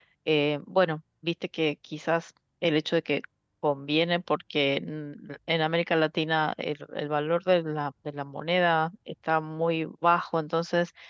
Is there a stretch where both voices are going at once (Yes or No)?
No